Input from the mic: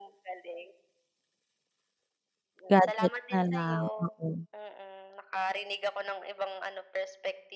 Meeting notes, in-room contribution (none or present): present